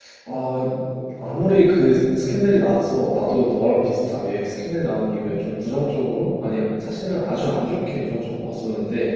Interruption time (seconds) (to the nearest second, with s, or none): none